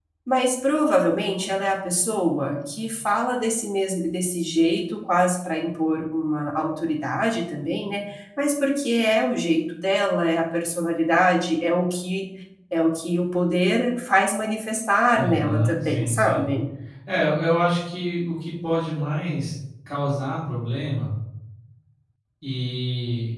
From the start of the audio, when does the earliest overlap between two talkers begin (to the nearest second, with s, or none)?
15 s